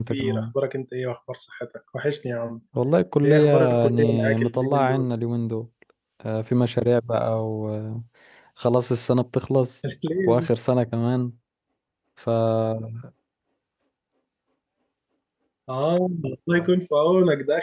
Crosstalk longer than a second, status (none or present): present